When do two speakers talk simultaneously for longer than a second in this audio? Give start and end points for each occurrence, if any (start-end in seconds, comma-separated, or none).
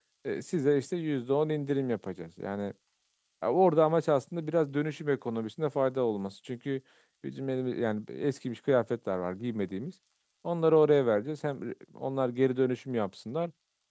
none